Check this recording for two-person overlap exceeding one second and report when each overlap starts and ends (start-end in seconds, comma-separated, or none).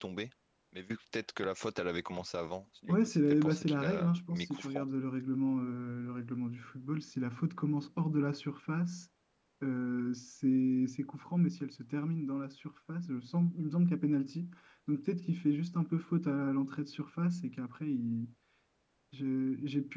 2.9-4.8